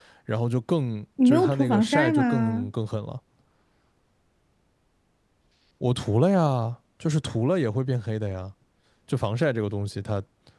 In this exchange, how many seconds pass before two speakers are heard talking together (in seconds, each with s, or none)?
1.2 s